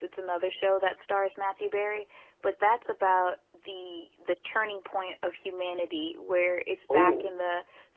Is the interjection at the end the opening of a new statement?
No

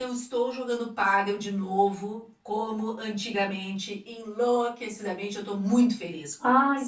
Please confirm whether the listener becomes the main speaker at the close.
Yes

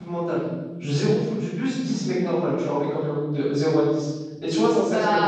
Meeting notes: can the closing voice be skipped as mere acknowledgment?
Yes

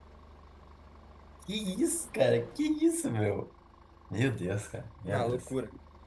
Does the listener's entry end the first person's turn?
Yes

